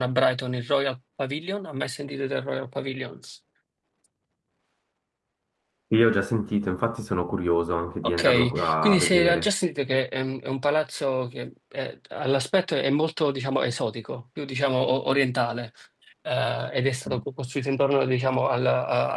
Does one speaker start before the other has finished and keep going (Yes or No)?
Yes